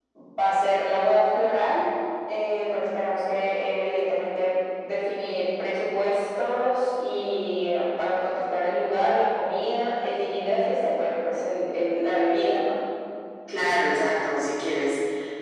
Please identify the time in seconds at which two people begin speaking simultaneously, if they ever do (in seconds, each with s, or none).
none